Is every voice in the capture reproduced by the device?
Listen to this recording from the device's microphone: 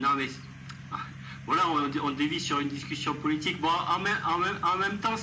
Yes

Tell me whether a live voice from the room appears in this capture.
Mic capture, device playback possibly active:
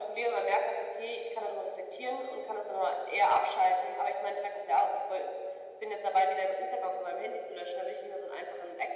No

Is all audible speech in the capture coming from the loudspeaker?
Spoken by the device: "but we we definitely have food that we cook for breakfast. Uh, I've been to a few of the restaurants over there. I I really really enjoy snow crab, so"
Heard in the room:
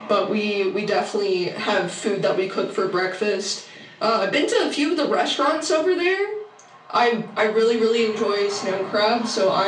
Yes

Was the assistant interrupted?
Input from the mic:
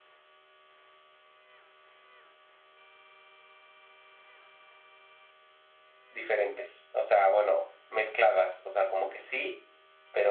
Yes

